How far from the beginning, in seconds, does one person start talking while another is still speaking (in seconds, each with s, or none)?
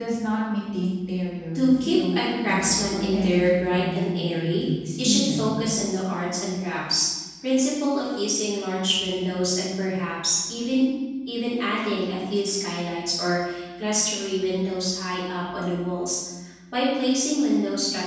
1.6 s